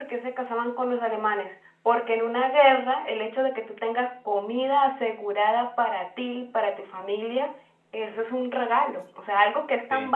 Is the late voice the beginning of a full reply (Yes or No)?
No